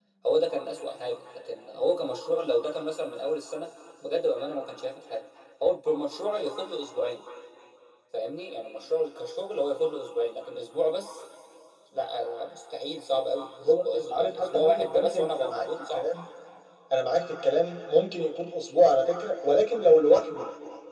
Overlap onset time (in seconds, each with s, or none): 13.6 s